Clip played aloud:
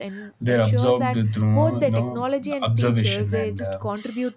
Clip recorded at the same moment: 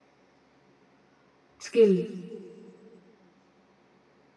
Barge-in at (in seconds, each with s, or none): 1.6 s